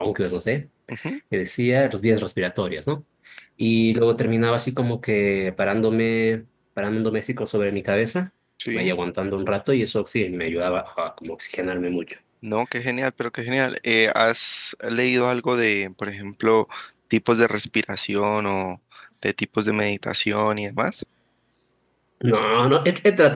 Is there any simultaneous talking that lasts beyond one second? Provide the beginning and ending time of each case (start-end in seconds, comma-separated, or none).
none